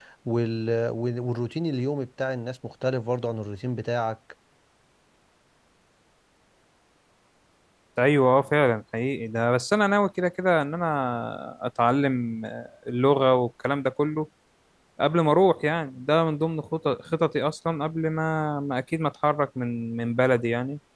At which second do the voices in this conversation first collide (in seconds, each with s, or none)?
none